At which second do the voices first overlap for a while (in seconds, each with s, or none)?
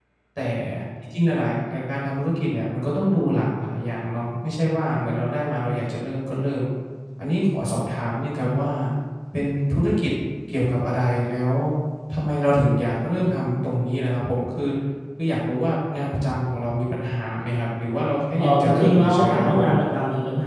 18.4 s